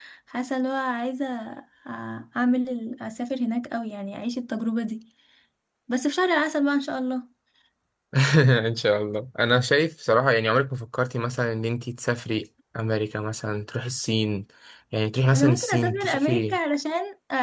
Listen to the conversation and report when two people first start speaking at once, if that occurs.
15.3 s

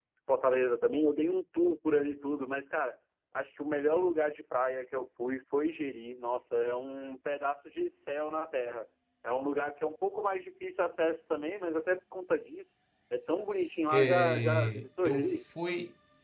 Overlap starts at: 13.9 s

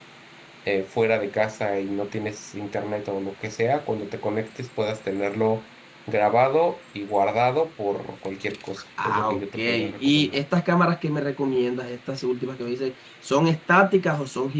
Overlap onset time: 9.0 s

